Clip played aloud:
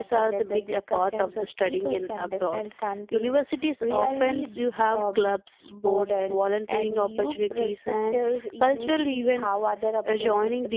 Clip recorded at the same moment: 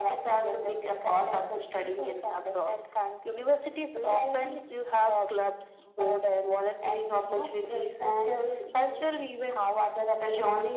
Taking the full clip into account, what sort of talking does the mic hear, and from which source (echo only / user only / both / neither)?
echo only